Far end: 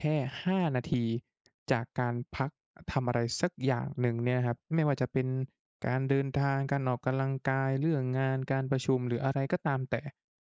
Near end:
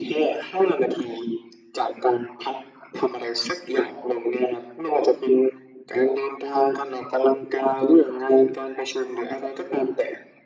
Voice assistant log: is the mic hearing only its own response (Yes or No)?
Yes